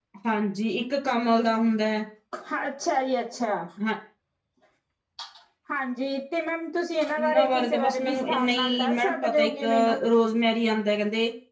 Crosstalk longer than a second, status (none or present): present